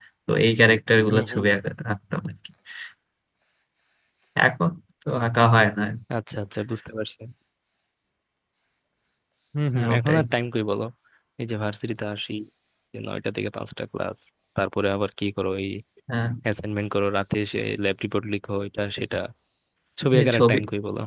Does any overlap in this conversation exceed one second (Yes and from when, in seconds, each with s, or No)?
No